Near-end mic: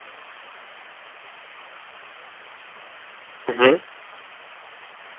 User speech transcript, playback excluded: Mmh.

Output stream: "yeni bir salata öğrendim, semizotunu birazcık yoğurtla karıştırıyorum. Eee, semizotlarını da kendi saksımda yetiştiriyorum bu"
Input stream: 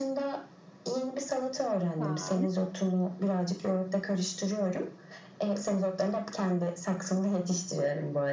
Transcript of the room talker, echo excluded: Güzel.

